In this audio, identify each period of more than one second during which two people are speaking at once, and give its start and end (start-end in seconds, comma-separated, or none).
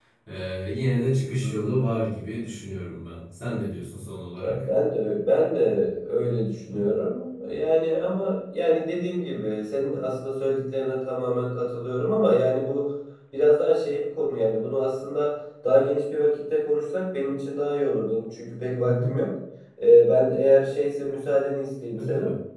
none